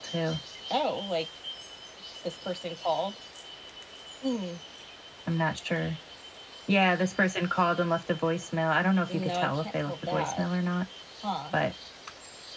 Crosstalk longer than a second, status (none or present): present